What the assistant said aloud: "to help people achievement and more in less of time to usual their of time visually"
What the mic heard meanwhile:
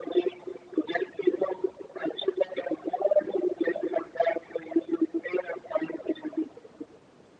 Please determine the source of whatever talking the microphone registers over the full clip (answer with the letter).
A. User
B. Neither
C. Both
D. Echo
D